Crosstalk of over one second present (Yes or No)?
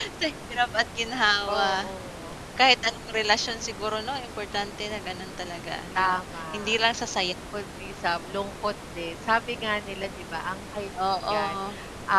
No